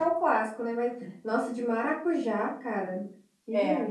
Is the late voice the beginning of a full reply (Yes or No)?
Yes